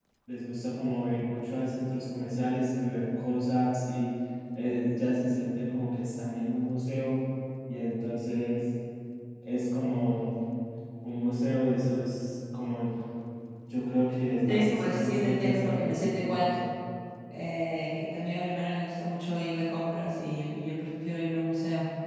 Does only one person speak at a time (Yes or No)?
No